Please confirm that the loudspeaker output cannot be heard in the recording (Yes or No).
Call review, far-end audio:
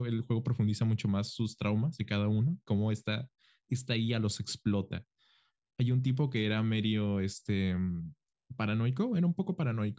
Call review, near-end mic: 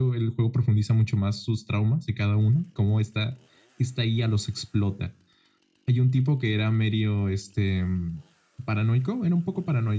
No